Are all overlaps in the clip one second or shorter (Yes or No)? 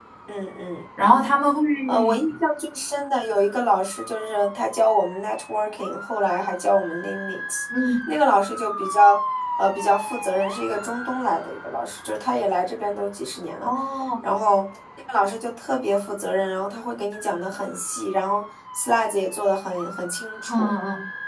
Yes